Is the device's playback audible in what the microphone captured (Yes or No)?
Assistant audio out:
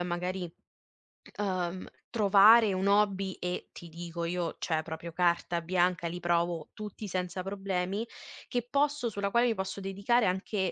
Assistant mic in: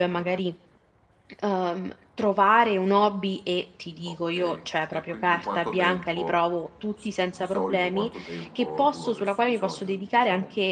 Yes